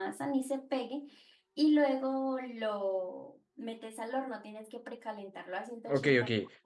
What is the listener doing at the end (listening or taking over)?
taking over